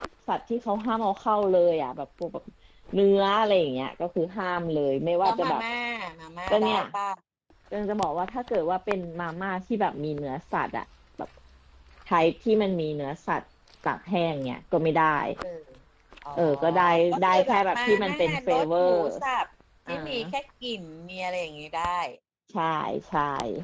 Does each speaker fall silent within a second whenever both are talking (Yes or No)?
No